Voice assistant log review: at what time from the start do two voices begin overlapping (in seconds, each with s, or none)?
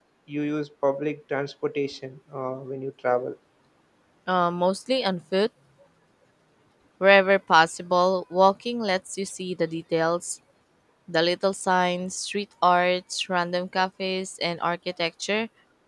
none